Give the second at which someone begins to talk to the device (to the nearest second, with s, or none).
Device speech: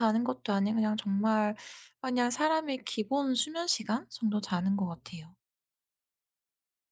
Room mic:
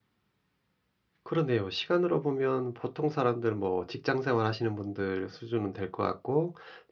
1 s